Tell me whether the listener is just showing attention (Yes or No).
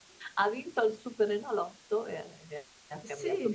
No